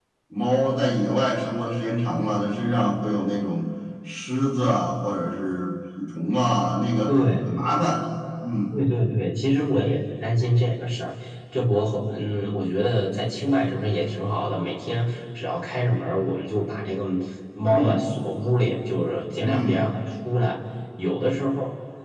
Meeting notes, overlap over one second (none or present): none